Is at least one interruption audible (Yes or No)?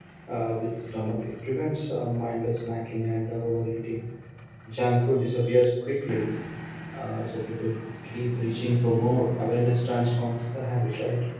No